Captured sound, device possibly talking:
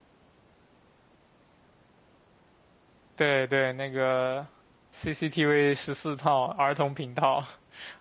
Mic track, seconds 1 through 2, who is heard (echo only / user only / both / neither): neither